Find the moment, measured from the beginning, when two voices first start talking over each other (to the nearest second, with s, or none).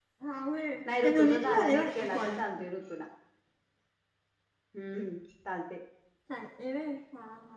1 s